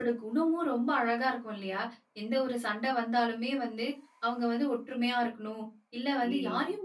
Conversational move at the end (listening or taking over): listening